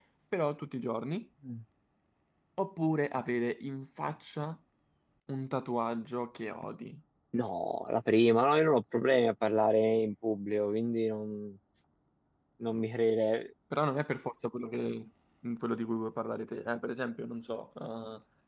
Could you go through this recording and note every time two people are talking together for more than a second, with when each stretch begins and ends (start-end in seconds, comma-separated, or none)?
none